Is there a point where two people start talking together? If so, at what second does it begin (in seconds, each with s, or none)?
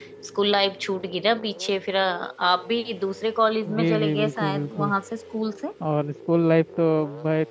3.6 s